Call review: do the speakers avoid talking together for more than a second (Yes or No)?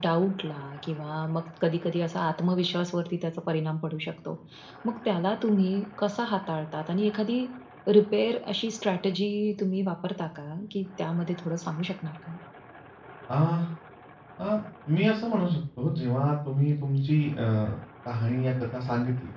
Yes